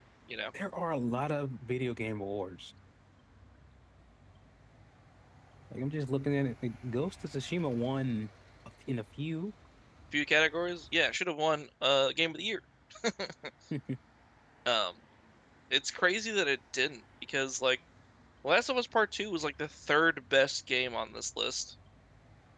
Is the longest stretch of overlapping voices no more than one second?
Yes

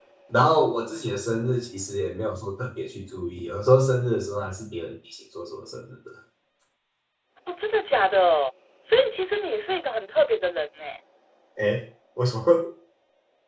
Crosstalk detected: No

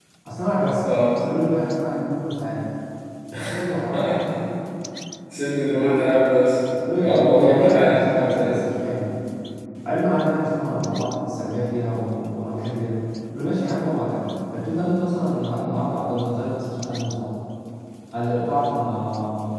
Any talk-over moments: Yes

